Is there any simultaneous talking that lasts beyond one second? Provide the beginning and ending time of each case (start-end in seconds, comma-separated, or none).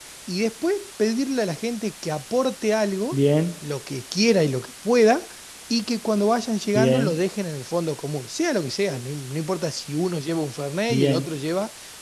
none